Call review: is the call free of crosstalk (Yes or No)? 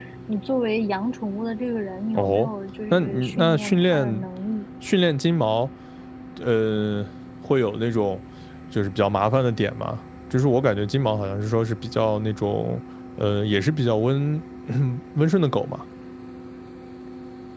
No